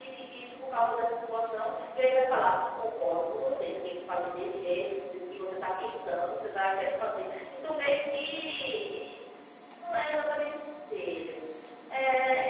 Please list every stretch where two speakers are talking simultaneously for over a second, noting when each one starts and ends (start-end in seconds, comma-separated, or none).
none